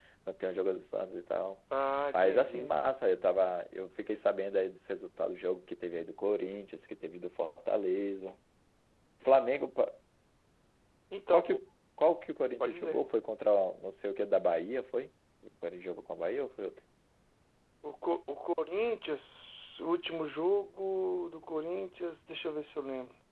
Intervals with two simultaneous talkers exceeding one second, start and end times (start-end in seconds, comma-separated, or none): none